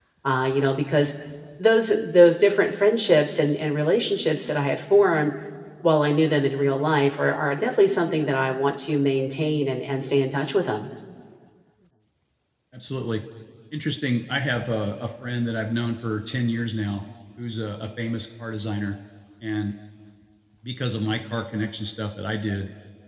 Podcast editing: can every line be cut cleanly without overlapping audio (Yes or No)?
Yes